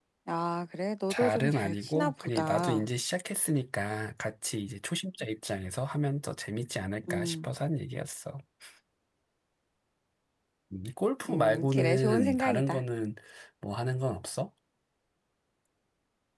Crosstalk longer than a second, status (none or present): present